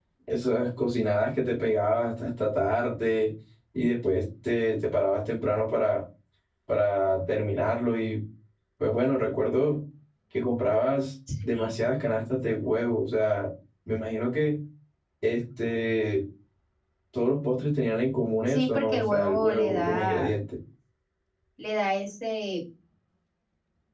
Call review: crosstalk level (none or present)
present